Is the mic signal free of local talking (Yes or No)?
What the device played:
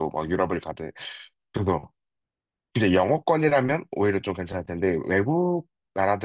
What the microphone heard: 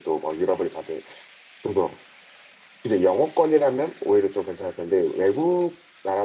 Yes